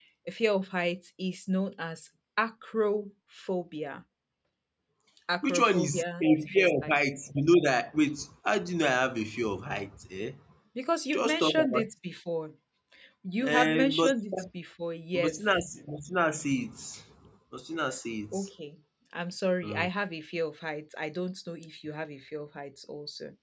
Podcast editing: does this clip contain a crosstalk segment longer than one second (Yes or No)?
Yes